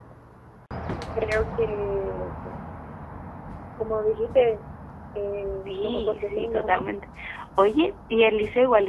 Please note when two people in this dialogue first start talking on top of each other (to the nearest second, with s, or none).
6 s